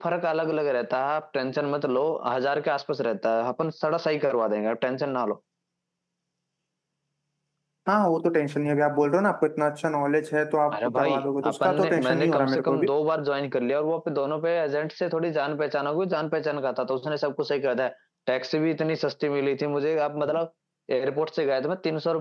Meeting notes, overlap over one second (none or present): present